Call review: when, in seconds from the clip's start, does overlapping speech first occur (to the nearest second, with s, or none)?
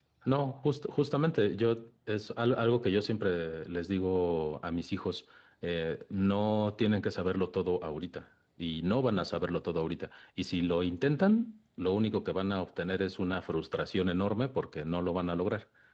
none